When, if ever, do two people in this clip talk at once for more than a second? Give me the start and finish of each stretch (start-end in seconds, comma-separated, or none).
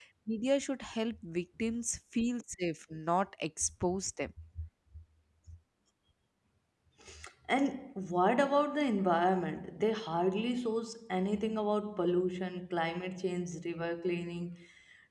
none